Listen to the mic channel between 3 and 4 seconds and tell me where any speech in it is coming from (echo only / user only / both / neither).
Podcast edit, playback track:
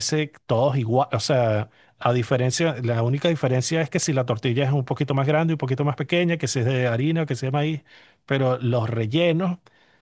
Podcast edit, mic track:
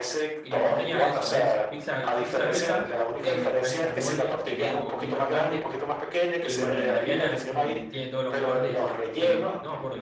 both